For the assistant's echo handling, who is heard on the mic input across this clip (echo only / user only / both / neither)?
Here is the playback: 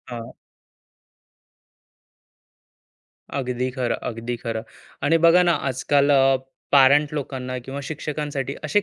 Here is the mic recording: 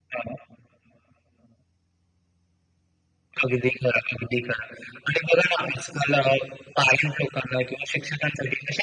echo only